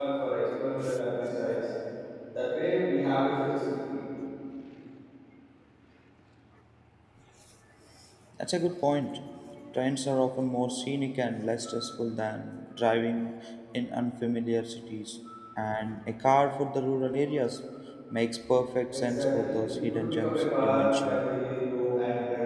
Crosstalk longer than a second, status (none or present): present